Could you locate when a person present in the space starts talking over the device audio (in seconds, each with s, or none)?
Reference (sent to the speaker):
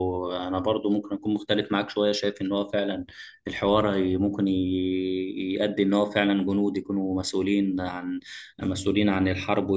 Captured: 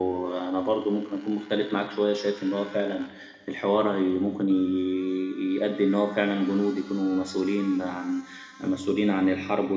none